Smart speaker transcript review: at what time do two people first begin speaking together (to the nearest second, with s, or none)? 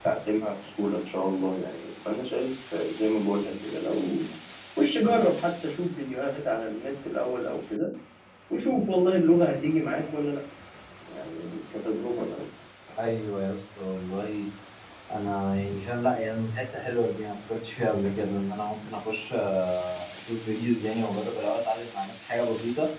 none